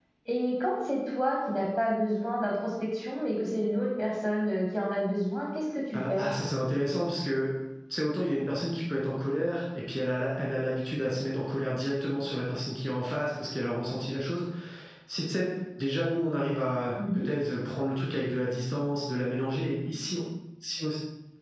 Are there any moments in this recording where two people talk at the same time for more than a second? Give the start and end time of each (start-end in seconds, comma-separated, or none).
none